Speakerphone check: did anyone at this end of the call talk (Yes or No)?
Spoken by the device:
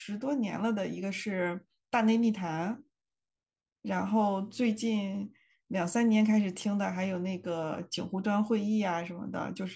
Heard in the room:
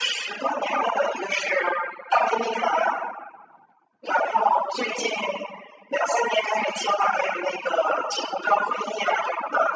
No